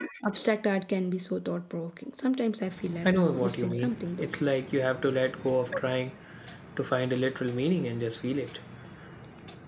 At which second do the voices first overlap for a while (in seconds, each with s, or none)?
3.0 s